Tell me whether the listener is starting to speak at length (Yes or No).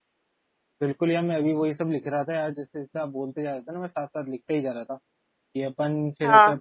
No